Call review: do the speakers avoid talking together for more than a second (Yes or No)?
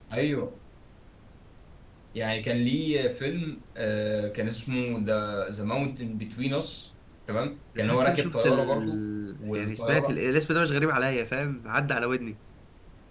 No